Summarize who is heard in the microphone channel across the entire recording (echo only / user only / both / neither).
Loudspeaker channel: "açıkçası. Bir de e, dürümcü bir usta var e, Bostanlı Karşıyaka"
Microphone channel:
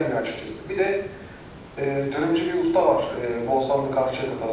echo only